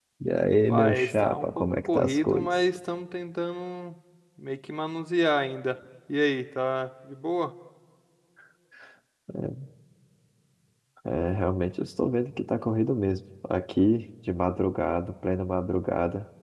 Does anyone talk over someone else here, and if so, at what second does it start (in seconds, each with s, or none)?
0.7 s